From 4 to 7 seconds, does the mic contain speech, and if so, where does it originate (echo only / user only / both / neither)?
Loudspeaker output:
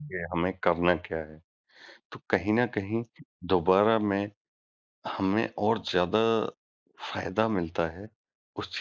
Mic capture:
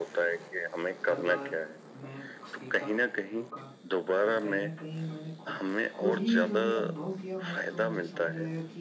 both